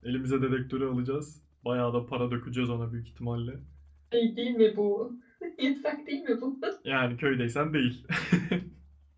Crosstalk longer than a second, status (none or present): none